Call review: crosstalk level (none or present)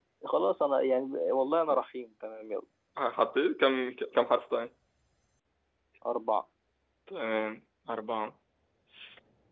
none